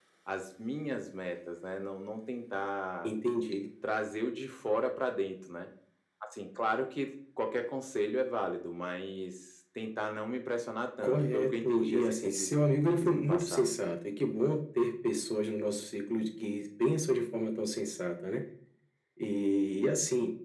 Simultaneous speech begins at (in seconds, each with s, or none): 11.0 s